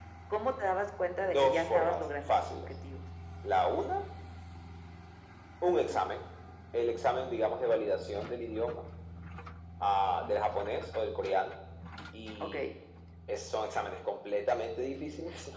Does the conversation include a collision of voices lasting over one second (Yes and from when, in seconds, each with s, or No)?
Yes, from 1.2 s